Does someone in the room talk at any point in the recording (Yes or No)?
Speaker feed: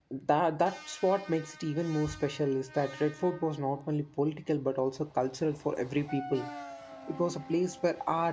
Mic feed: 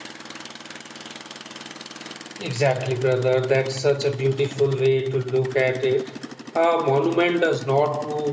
Yes